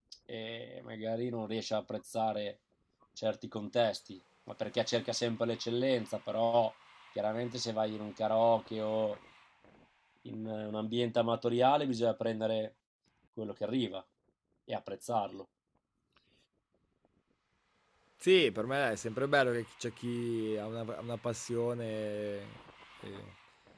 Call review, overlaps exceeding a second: none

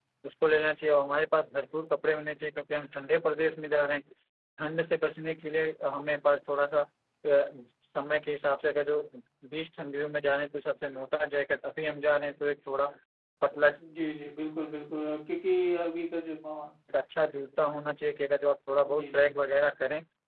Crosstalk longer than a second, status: none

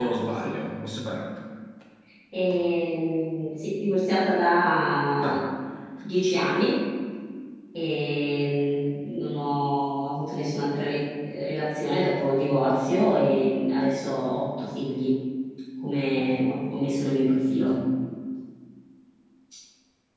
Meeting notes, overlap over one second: none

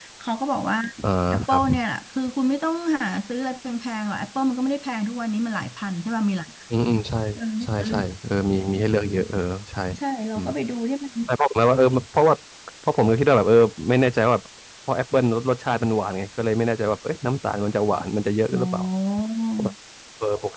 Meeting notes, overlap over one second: none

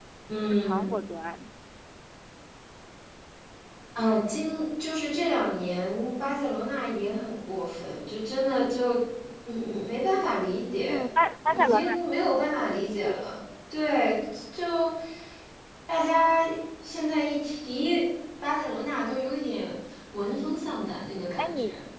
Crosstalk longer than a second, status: none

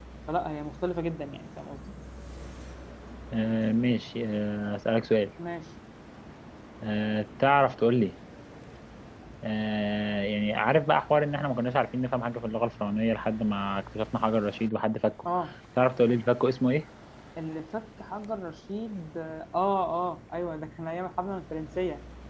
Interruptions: none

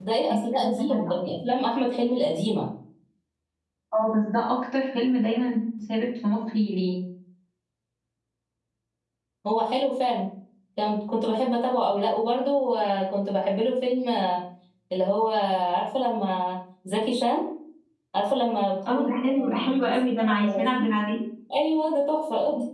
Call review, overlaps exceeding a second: present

